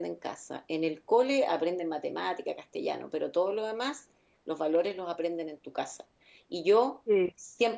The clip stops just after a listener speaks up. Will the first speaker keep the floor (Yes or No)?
Yes